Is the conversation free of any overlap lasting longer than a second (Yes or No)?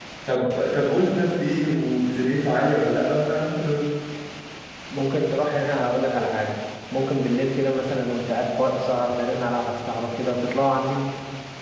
Yes